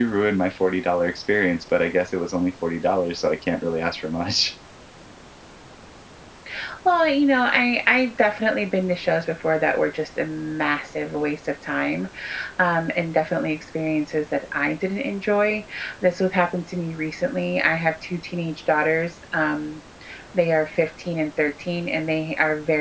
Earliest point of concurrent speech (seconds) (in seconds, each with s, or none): none